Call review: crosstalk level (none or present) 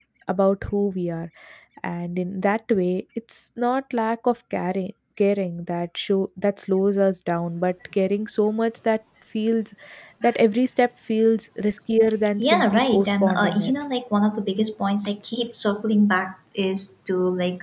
present